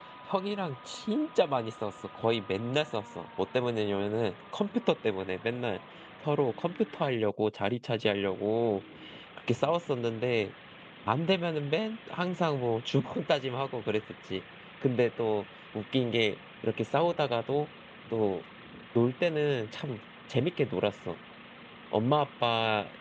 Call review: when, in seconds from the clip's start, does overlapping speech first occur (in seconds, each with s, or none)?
none